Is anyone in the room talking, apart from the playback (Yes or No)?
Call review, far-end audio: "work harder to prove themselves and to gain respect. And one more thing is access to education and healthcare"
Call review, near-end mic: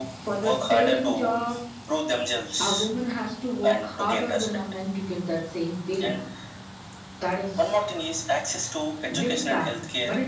Yes